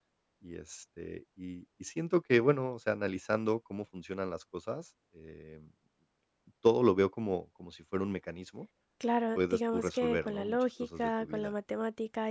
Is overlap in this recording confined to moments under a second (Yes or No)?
No